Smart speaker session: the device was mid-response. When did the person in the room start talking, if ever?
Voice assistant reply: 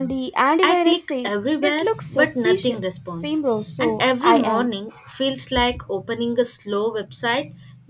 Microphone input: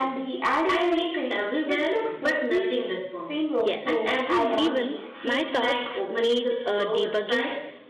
4 s

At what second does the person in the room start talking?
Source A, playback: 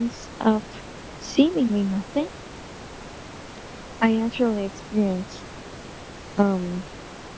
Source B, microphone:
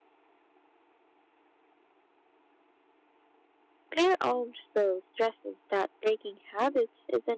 4 s

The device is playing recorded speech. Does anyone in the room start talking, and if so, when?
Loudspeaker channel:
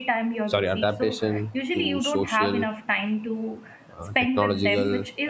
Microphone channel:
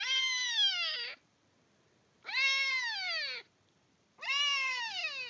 none

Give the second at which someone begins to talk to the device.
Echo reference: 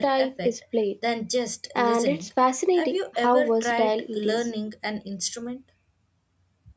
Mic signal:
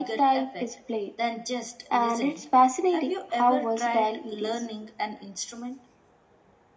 none

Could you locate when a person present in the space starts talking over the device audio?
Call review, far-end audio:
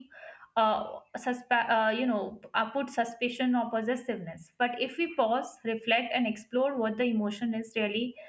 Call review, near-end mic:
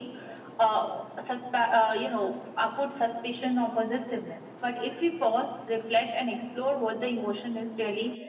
none

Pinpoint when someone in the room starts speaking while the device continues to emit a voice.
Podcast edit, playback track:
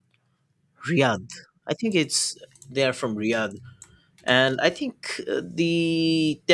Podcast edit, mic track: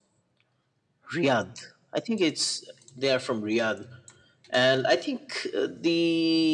none

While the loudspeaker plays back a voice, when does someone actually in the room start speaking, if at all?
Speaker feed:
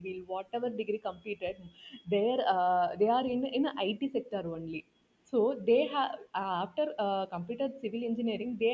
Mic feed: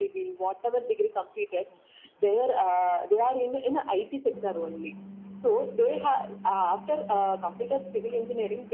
none

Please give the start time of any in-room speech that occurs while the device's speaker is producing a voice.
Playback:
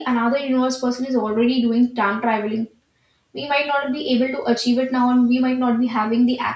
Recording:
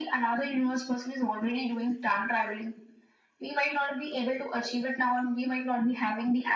none

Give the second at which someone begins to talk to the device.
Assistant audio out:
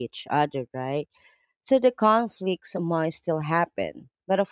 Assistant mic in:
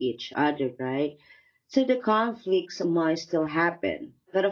none

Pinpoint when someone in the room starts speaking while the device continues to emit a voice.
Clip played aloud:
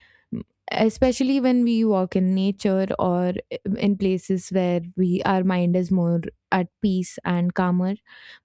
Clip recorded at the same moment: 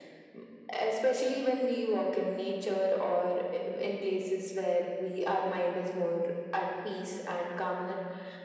none

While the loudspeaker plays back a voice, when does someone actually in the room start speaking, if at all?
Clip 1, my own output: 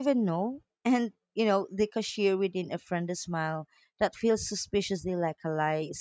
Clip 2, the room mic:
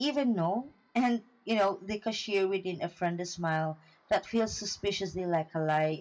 none

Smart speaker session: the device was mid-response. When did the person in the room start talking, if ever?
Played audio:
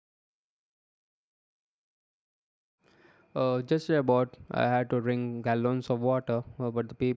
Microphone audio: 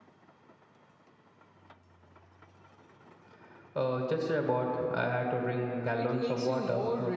6 s

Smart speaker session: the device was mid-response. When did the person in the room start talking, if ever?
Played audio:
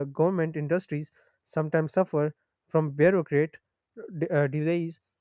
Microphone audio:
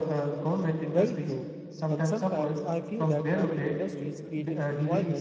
1 s

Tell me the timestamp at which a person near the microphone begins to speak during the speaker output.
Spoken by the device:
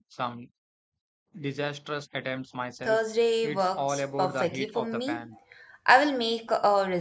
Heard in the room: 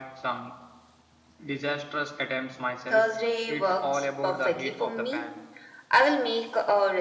none

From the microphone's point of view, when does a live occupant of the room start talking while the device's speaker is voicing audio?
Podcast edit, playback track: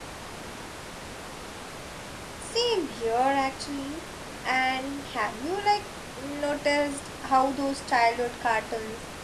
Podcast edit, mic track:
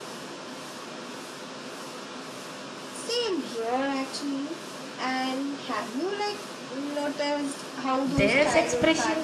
8 s

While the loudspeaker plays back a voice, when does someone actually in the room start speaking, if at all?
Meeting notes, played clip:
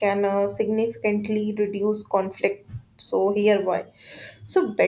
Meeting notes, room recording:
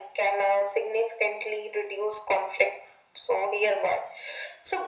none

